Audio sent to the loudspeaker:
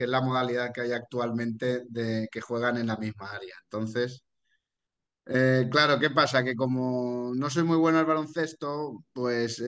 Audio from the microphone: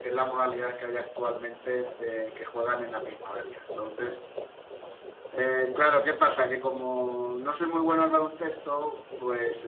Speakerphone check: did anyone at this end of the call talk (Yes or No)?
No